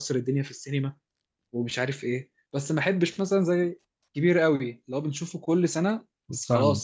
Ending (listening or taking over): listening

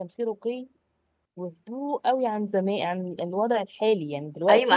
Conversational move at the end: taking over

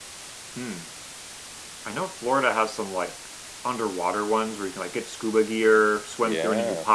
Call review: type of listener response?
listening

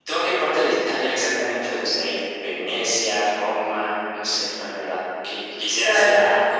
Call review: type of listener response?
listening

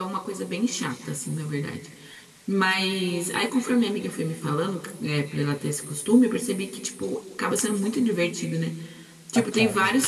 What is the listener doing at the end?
listening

